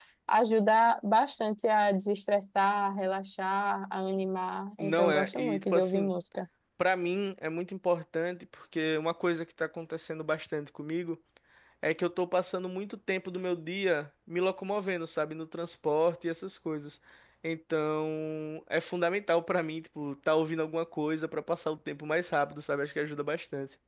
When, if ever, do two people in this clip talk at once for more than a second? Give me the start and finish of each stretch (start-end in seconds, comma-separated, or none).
4.8-6.1